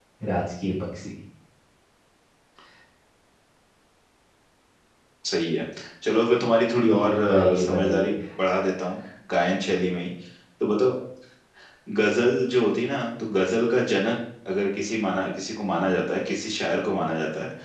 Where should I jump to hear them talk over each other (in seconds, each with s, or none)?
6.9 s